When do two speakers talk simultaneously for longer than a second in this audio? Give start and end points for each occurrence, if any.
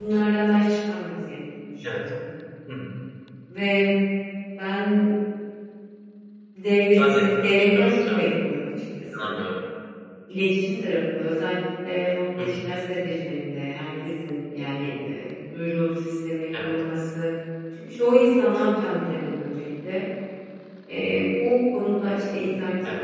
7.0-8.3

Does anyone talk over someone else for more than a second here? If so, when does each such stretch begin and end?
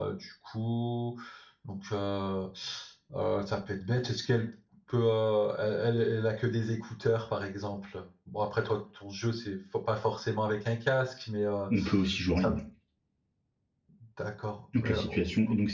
none

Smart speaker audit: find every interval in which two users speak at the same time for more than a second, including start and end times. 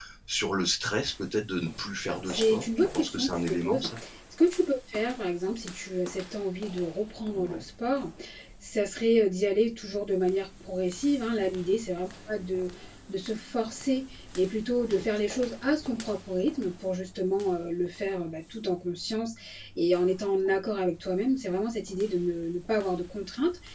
2.1-3.9

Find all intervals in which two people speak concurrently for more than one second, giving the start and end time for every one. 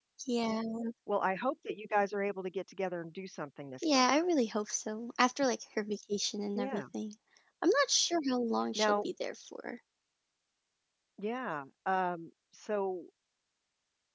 none

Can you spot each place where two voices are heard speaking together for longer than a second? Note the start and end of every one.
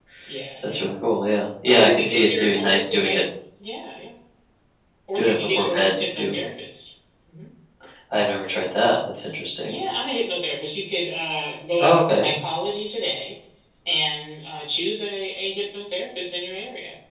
1.6-3.1, 5.2-6.4

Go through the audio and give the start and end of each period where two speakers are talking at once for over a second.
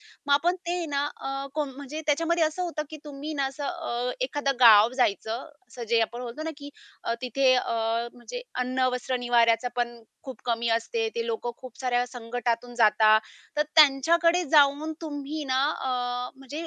none

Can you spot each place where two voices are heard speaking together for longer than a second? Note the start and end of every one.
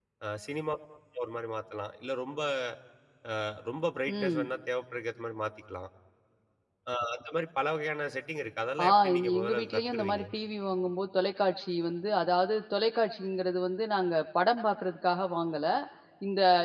8.9-10.2

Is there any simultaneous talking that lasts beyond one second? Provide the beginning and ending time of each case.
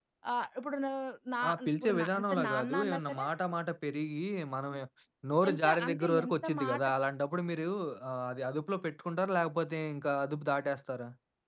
1.5-3.2, 5.5-6.9

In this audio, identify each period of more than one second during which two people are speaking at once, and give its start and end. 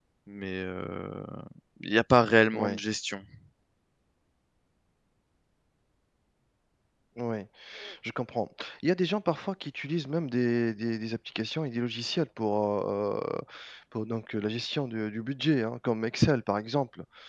none

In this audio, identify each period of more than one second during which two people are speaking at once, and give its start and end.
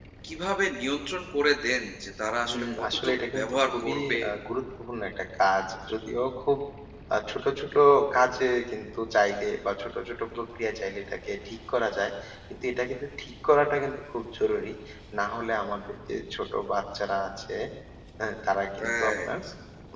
2.4-4.2

